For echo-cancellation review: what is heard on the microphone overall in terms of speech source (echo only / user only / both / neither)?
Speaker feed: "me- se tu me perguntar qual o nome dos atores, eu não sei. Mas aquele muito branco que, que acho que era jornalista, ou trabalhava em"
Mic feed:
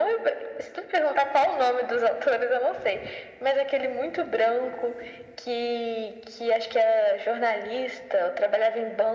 echo only